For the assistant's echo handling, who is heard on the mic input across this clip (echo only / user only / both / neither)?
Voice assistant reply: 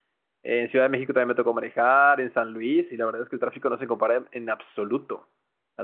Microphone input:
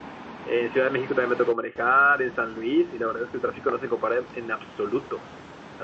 echo only